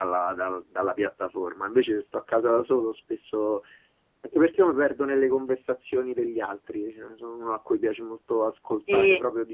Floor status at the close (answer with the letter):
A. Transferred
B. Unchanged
A